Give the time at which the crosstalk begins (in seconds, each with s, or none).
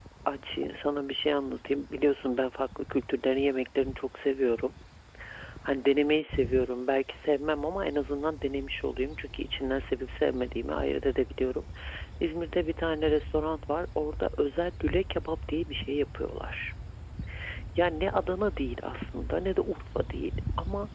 none